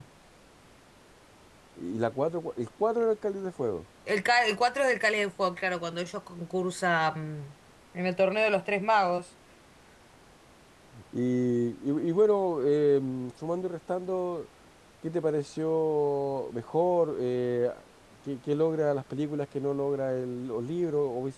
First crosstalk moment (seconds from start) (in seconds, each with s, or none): none